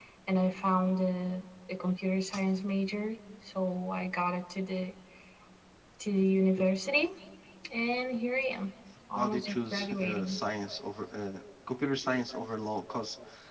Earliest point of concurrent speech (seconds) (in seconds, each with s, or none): 9.1 s